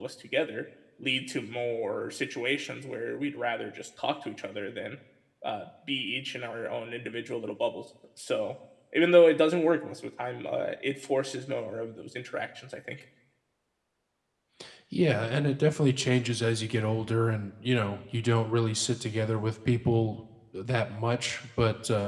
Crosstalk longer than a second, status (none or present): none